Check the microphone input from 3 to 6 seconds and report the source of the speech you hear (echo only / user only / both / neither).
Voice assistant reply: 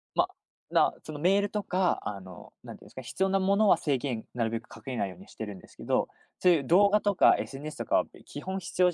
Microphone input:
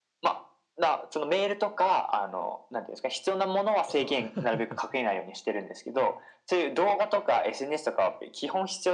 both